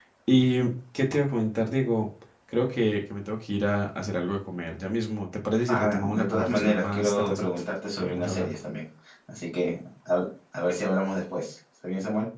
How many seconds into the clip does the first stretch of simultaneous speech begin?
5.7 s

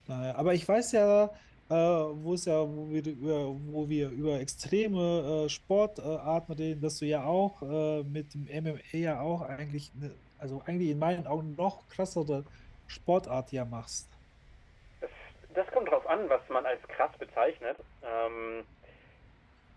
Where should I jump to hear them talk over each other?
none

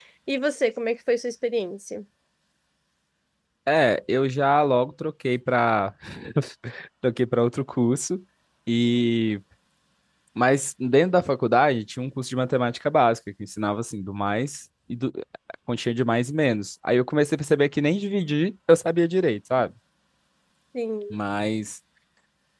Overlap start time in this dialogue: none

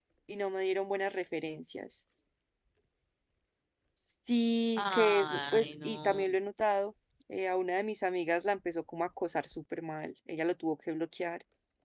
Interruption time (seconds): 4.8 s

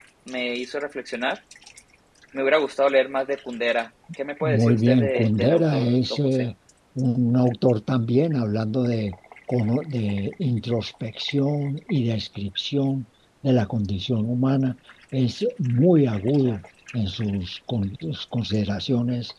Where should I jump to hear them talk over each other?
4.4 s

